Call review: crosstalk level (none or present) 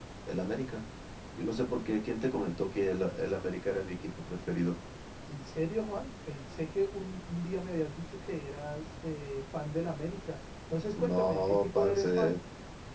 present